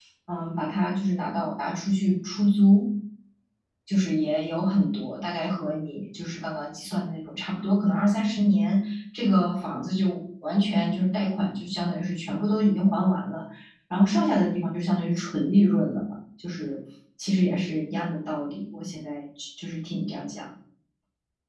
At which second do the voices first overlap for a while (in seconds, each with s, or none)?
none